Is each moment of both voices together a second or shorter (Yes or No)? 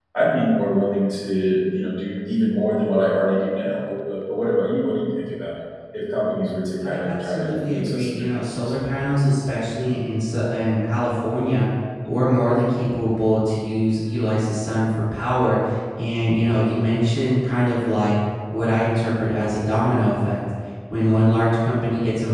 No